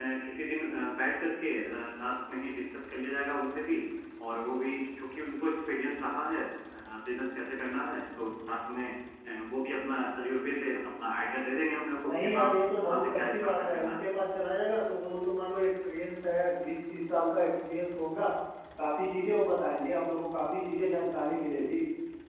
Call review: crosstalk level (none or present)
present